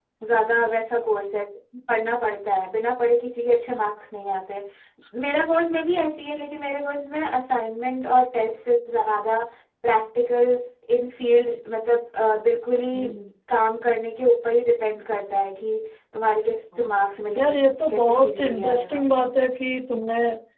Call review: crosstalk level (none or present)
present